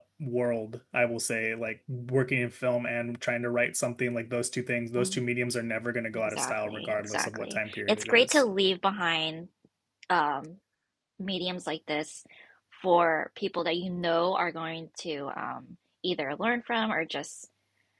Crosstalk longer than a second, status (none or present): present